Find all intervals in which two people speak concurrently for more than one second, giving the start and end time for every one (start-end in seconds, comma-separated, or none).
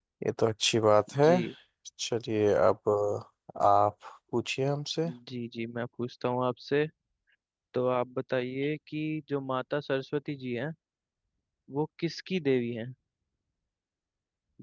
none